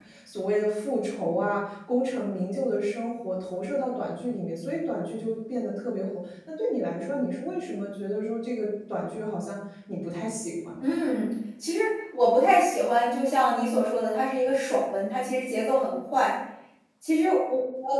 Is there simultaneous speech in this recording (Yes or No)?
No